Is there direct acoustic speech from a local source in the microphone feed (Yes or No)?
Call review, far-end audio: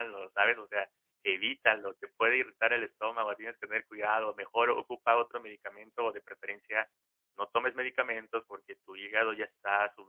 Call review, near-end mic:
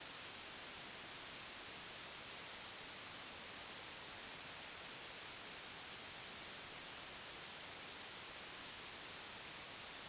No